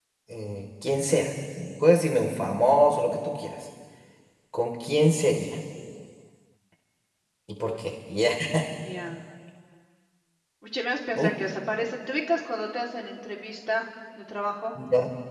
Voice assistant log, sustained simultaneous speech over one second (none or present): none